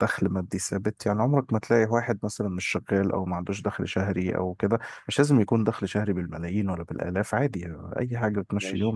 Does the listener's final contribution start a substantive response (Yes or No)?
No